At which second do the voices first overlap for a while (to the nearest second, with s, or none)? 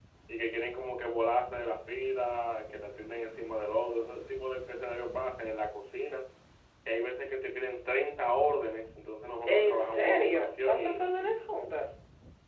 9 s